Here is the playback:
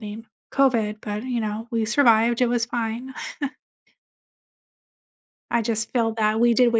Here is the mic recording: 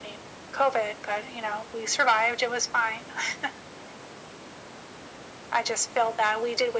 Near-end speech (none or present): none